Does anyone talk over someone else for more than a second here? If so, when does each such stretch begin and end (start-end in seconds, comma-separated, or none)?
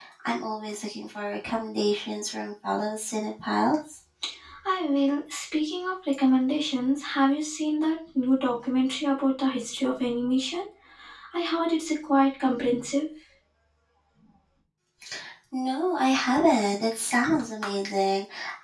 none